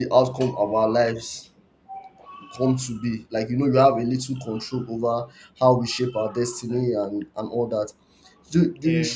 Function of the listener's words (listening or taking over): listening